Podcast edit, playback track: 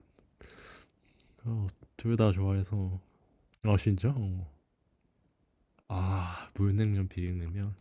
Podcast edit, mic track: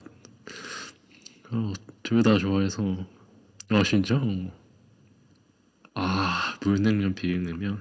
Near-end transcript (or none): none